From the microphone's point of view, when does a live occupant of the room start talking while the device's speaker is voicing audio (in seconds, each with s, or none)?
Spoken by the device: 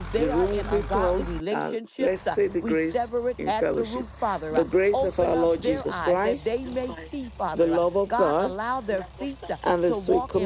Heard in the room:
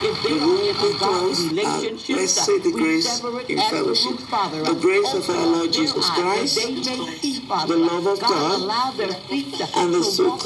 none